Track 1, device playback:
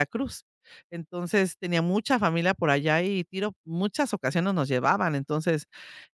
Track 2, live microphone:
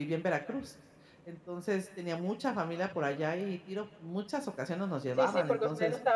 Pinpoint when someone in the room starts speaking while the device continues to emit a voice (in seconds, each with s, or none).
5.1 s